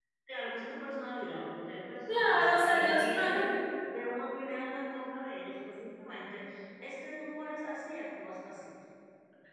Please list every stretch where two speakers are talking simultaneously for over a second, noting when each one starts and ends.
2.1-3.4

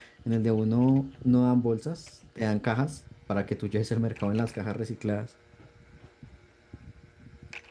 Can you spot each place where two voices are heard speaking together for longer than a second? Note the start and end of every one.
none

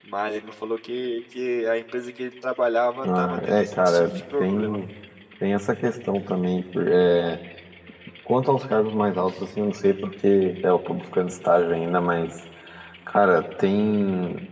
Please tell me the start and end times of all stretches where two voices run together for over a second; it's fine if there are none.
3.0-4.8

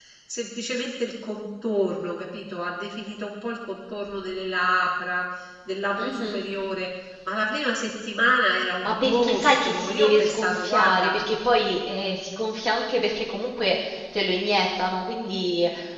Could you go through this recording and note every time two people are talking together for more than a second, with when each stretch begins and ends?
8.8-11.1

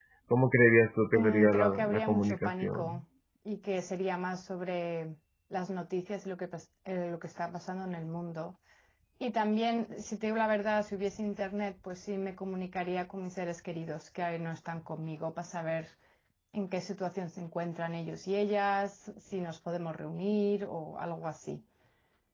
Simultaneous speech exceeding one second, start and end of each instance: 1.1-3.0

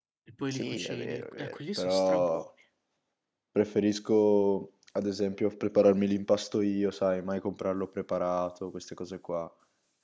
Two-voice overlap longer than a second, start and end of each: 0.5-2.4

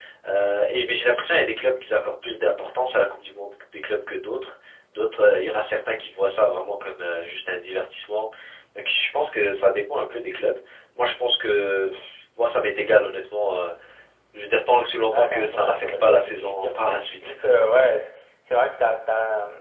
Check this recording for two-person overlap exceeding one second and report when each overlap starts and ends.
15.1-16.7

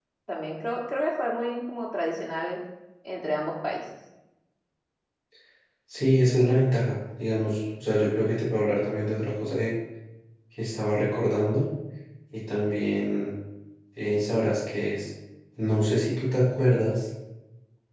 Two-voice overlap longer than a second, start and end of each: none

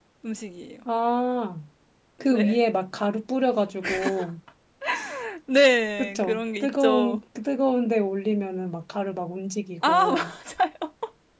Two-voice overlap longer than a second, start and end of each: 6.0-7.2

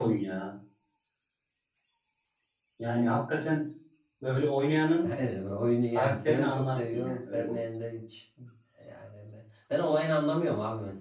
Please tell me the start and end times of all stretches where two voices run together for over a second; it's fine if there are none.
6.0-7.6

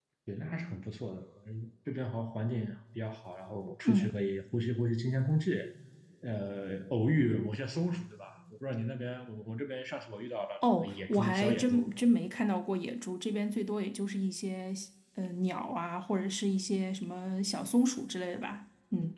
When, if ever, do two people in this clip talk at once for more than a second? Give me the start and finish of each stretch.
10.6-11.9

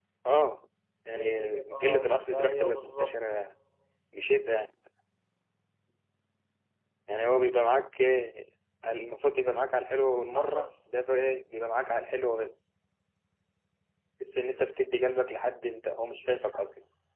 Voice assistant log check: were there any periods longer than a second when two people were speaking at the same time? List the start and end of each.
1.1-3.1

